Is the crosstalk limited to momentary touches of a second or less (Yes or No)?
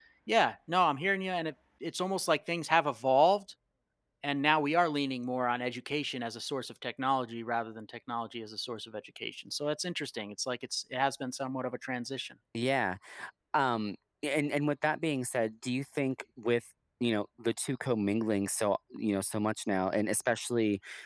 Yes